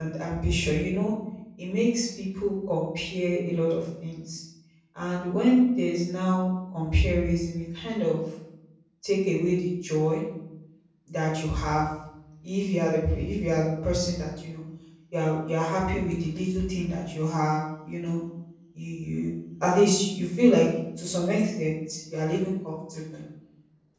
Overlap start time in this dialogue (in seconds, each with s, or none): none